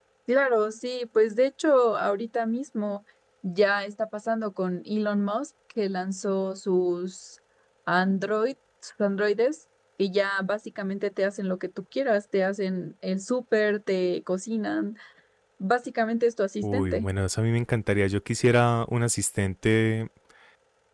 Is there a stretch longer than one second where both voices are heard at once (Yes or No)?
No